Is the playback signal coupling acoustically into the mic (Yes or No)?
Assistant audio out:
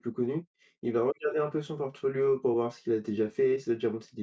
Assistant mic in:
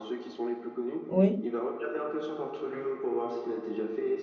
Yes